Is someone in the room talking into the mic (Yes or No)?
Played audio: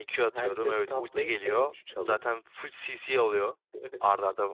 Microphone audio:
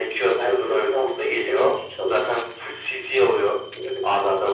No